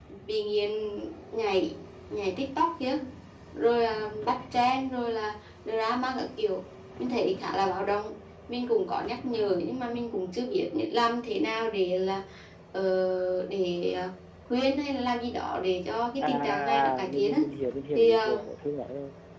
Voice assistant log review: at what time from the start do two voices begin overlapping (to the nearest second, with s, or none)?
16 s